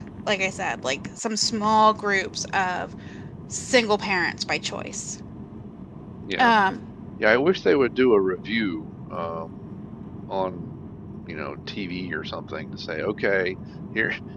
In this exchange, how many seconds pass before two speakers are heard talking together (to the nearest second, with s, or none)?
none